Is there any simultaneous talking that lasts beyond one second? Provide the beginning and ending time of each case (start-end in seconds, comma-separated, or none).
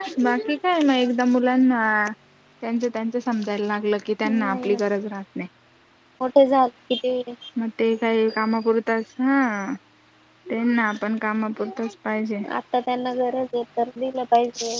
none